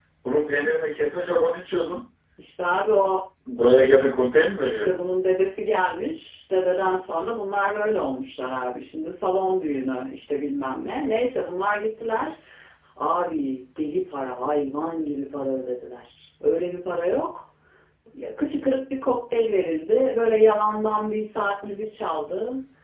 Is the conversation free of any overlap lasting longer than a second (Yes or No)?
Yes